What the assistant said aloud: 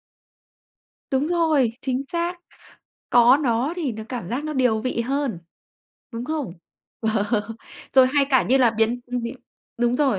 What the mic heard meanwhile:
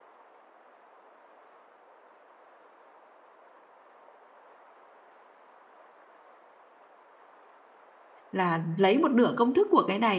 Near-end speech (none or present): present